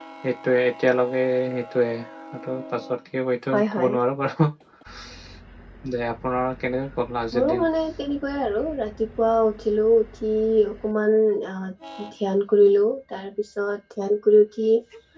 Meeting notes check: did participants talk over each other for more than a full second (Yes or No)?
No